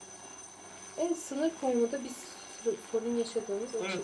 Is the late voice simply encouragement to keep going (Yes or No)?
No